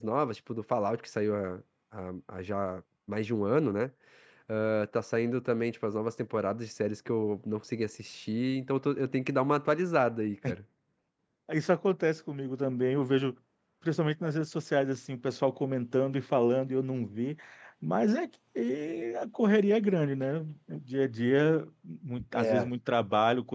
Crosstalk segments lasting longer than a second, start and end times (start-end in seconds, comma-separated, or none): none